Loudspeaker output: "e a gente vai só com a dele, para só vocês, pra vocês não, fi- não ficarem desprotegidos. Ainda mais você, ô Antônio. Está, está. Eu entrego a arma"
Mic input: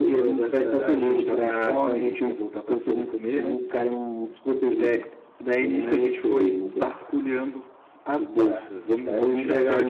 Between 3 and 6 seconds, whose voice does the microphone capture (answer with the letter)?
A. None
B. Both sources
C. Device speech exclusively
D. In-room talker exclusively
B